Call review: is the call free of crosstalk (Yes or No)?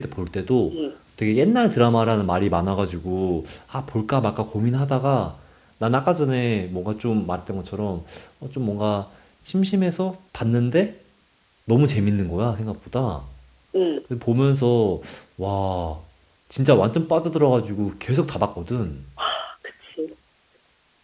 Yes